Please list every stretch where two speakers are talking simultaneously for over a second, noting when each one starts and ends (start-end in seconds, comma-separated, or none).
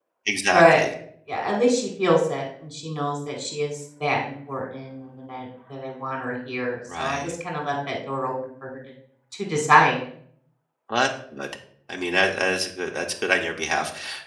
none